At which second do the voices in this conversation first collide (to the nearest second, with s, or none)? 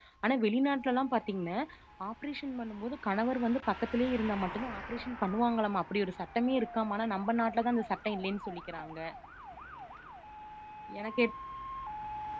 none